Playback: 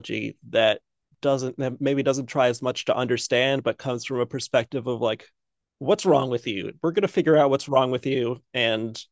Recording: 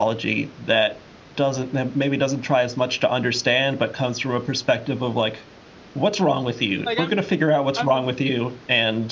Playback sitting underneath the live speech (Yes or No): No